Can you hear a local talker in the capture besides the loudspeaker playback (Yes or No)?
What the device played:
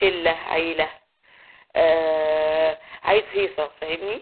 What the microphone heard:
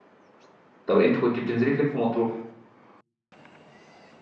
Yes